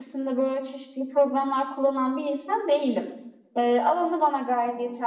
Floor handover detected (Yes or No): No